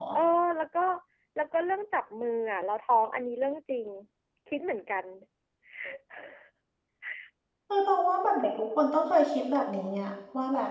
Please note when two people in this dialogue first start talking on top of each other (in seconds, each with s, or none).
none